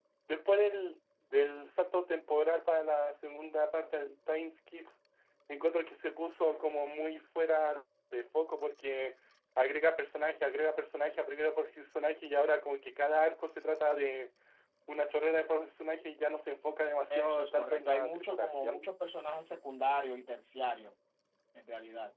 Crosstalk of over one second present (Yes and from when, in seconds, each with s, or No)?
Yes, from 17.1 s